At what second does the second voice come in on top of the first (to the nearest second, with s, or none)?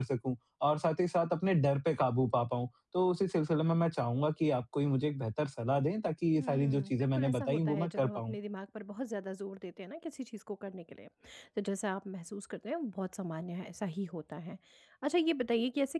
6 s